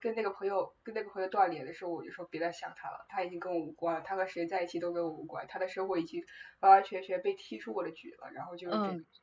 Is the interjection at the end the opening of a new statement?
Yes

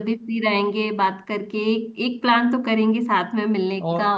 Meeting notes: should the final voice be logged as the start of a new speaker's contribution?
No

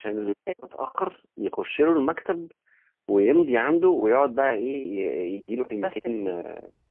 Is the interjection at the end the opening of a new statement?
No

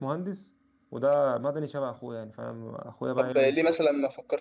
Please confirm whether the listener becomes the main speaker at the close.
Yes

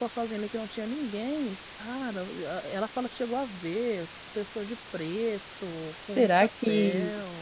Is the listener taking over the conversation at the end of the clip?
Yes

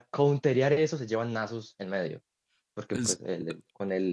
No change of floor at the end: Yes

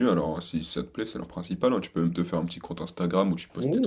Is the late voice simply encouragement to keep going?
No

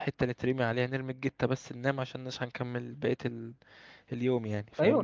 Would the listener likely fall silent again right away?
No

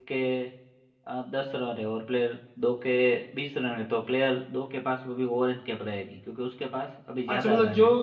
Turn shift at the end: Yes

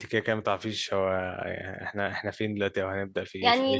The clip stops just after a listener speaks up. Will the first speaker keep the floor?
No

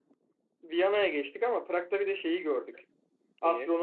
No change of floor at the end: Yes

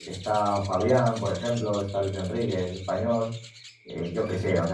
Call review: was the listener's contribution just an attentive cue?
Yes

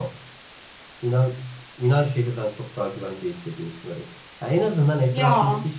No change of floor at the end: Yes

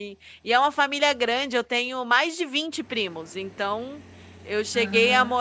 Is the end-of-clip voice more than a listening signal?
No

